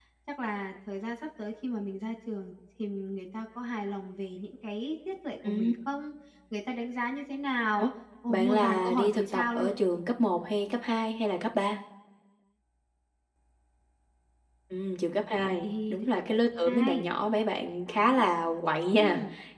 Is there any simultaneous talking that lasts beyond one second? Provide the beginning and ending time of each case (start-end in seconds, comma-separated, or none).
8.3-9.7, 15.4-17.1